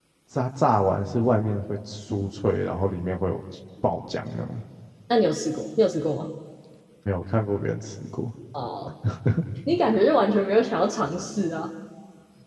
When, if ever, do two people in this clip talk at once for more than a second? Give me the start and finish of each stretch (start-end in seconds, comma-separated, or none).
none